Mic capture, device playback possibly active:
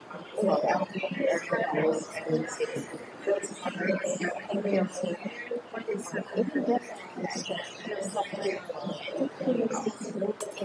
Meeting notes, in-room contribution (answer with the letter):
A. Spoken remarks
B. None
B